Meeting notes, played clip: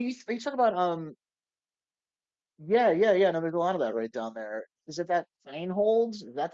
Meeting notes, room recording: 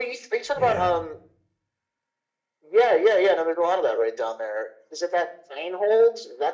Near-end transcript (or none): yeah,